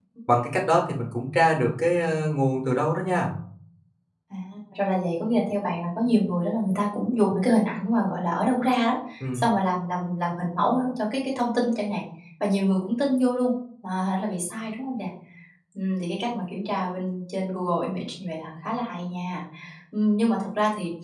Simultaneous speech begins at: none

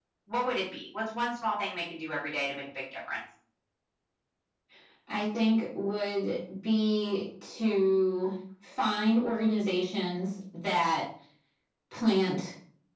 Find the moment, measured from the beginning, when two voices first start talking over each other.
none

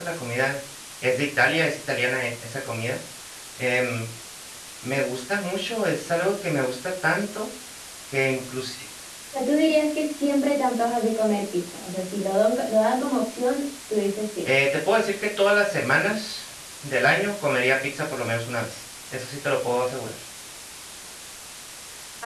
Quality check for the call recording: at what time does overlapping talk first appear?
none

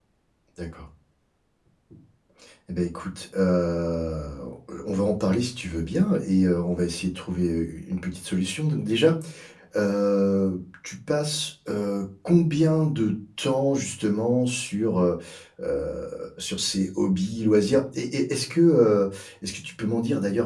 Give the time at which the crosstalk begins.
none

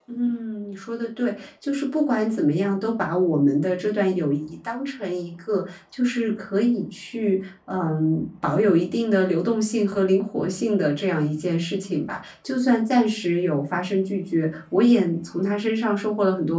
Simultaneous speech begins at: none

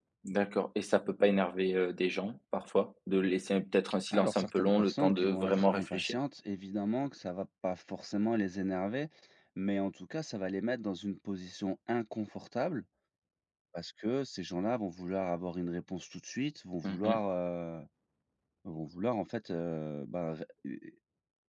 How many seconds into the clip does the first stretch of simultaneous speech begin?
4.1 s

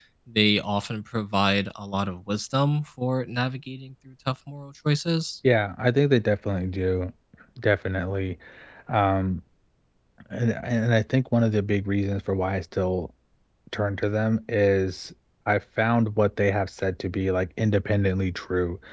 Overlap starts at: none

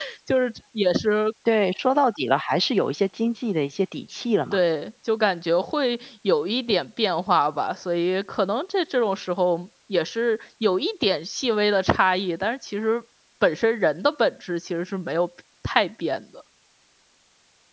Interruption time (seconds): none

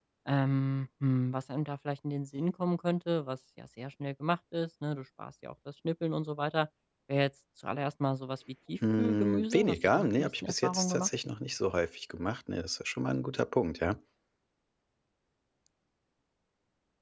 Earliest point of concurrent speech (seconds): 8.8 s

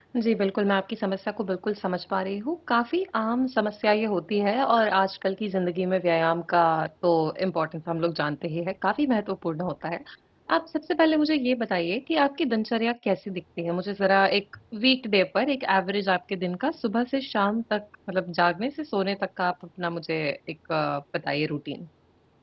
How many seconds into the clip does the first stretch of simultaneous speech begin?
none

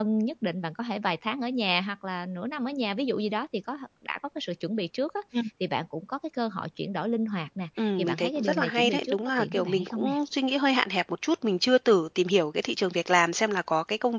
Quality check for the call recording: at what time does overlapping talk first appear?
7.8 s

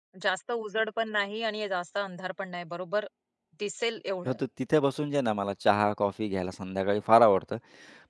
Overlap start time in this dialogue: none

